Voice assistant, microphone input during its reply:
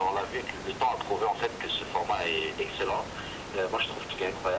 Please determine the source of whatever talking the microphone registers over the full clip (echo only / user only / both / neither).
echo only